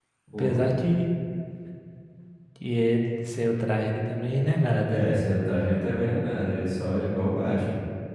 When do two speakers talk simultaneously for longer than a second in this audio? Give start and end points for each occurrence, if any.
none

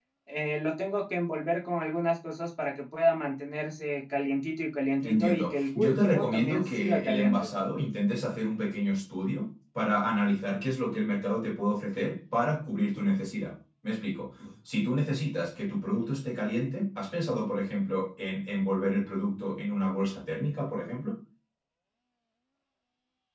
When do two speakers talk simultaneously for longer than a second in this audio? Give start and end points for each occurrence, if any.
5.0-7.5

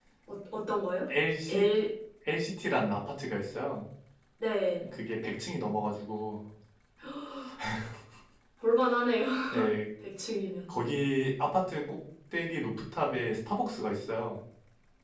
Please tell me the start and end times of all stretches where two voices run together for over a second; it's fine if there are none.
none

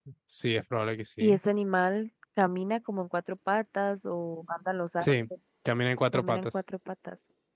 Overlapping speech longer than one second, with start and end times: none

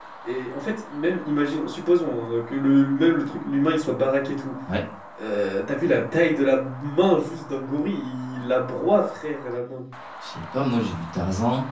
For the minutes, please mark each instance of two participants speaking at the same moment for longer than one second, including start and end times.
none

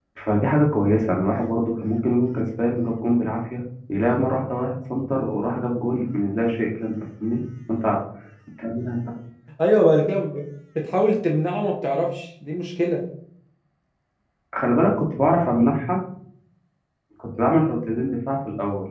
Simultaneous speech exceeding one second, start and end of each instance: none

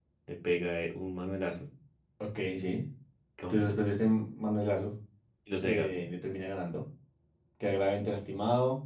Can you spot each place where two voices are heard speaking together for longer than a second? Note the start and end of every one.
none

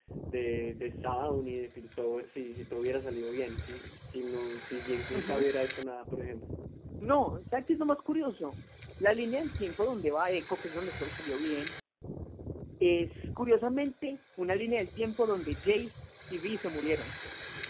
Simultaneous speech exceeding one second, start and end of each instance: none

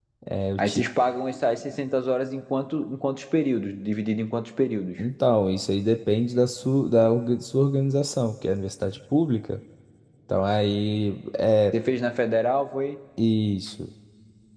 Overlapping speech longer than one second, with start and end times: none

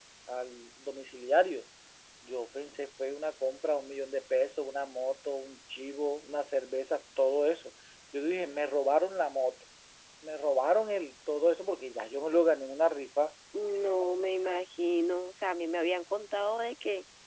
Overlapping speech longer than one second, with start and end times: none

